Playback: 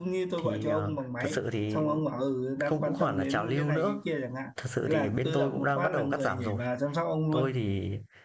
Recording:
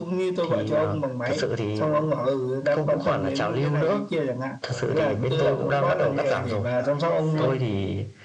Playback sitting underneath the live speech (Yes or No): No